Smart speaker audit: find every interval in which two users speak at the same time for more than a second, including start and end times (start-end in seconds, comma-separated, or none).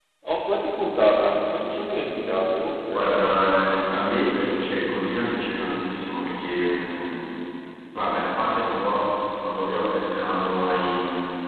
none